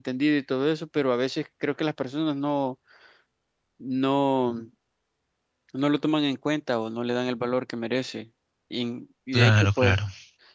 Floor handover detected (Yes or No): No